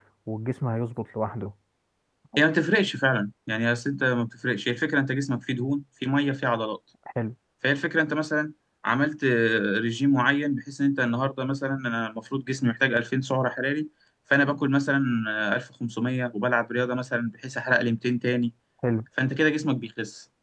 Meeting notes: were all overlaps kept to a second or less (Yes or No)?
Yes